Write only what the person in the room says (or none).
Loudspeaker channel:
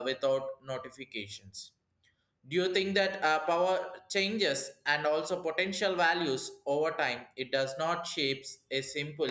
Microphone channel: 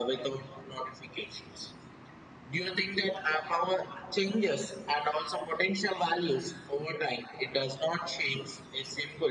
none